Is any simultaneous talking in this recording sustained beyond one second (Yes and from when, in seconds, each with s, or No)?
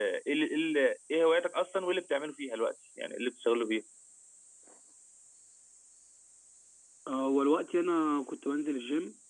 No